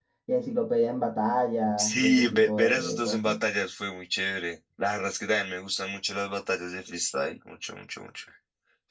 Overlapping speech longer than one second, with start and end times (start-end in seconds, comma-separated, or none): 1.8-3.4